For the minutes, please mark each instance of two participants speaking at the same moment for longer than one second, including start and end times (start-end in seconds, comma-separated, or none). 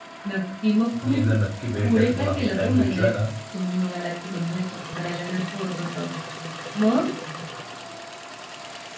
1.8-3.1